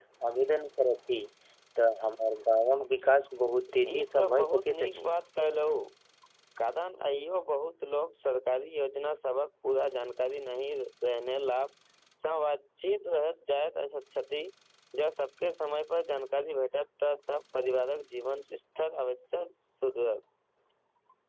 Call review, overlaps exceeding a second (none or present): present